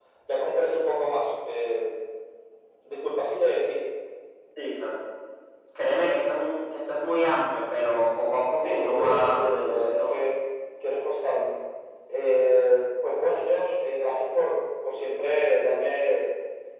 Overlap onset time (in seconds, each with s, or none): 8.6 s